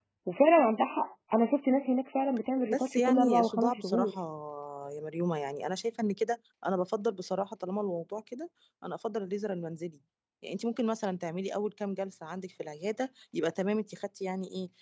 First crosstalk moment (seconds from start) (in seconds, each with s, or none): 2.7 s